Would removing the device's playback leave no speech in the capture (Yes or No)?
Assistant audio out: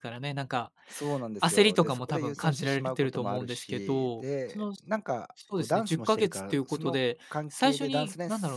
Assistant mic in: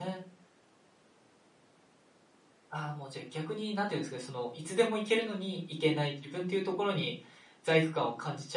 No